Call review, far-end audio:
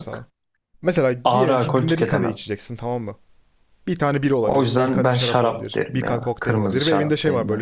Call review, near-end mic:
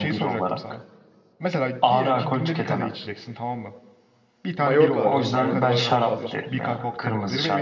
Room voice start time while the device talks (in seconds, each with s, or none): 4.6 s